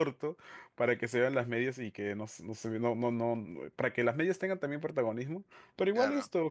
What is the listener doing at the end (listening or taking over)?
listening